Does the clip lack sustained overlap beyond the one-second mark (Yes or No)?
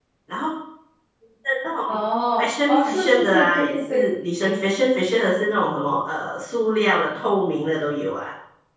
No